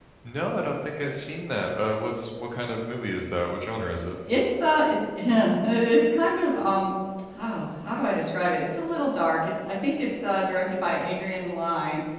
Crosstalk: none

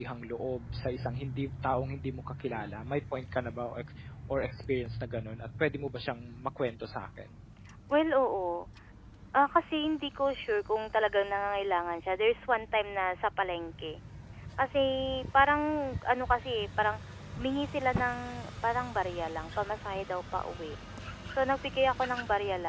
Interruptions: none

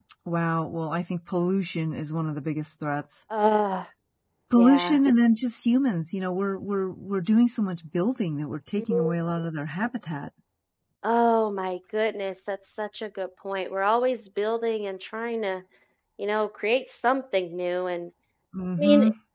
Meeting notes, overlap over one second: none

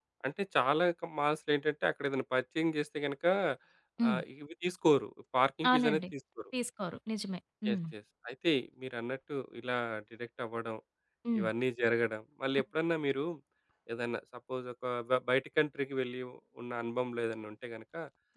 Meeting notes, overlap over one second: none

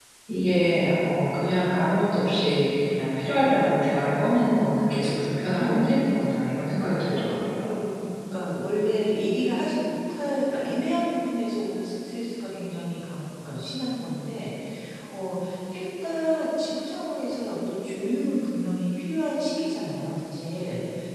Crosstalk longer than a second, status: none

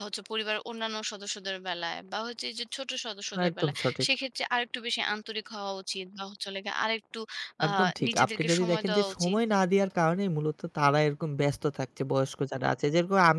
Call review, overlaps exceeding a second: present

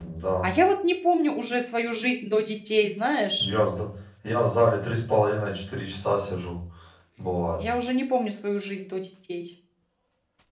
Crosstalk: none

